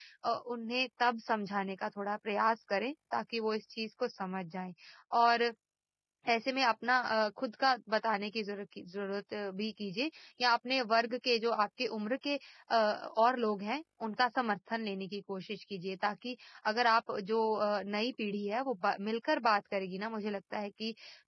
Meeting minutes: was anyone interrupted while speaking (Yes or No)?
No